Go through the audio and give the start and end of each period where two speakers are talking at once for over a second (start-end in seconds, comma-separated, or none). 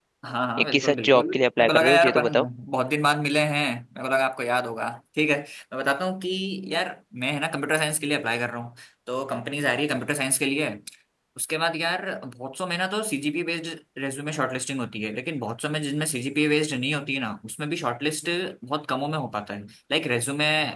0.6-2.4